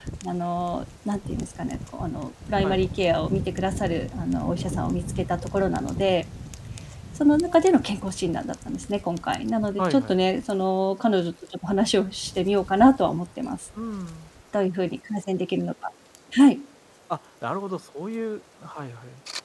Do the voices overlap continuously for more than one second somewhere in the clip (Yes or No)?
No